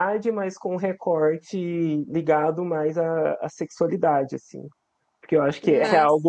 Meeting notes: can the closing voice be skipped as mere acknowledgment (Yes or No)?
Yes